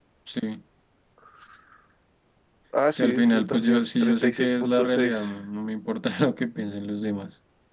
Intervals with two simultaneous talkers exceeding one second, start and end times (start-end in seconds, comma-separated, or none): 3.0-5.2